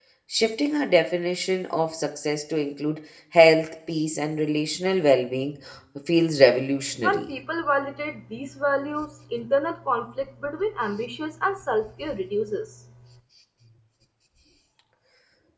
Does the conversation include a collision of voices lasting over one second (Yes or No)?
No